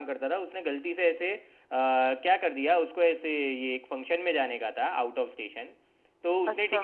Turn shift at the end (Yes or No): No